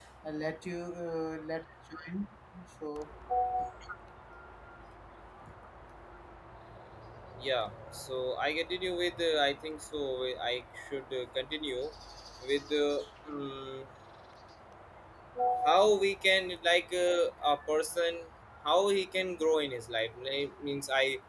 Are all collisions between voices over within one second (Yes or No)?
Yes